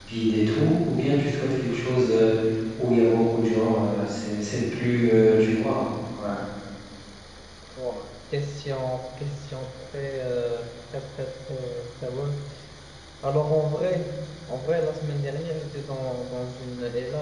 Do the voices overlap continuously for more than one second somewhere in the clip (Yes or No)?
No